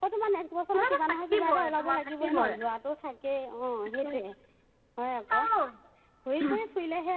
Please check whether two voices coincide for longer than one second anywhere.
Yes, from 0.7 s

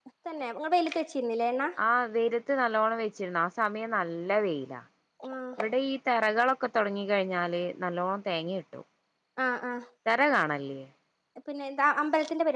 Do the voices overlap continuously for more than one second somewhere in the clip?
No

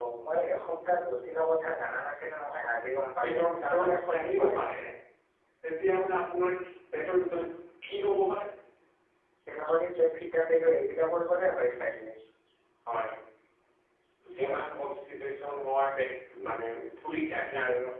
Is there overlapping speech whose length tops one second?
Yes, from 3.2 s

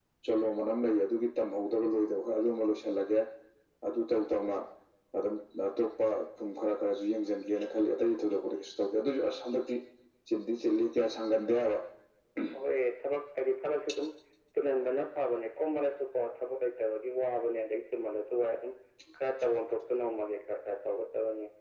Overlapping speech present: No

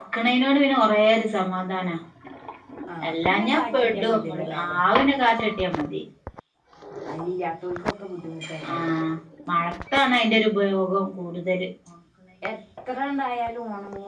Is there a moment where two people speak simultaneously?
Yes, from 3.1 s

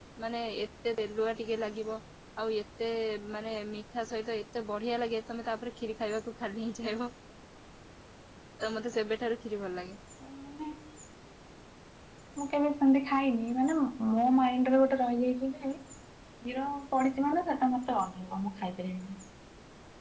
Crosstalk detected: No

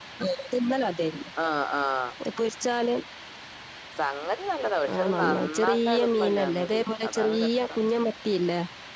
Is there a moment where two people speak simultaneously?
Yes, from 4.8 s

